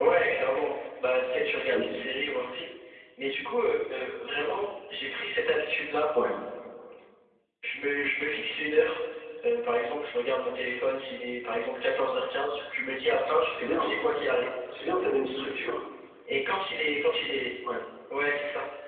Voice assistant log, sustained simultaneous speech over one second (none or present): none